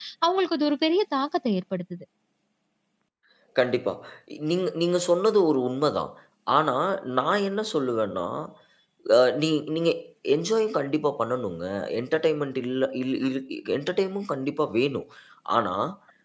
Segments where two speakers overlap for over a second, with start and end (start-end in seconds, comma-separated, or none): none